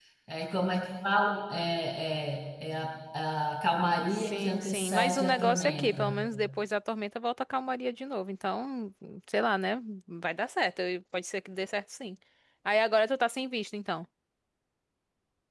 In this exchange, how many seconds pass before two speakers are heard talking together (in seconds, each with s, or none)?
4.1 s